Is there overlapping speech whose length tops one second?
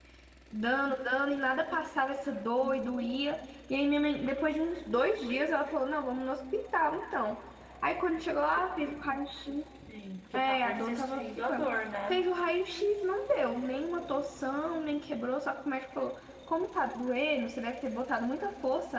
Yes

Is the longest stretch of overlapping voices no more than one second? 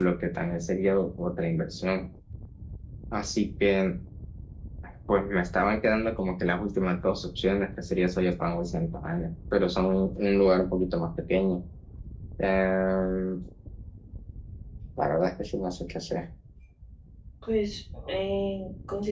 Yes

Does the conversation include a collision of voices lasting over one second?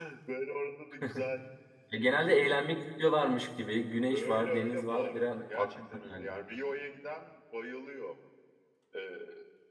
Yes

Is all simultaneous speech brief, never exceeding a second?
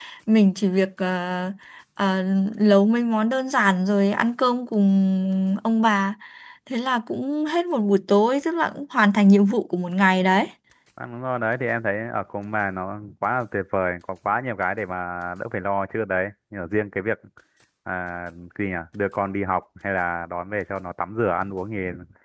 Yes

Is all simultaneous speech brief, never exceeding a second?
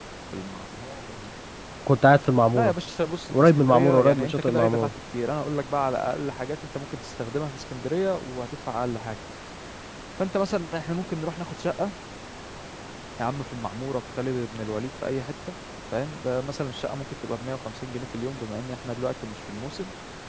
No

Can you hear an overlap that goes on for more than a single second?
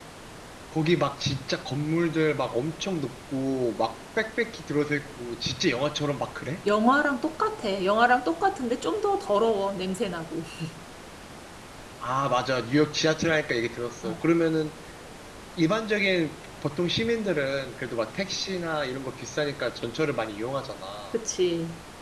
No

